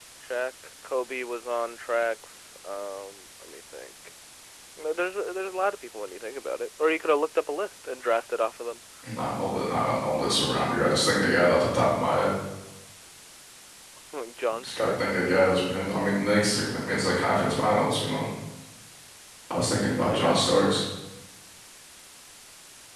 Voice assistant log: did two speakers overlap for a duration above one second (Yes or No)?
No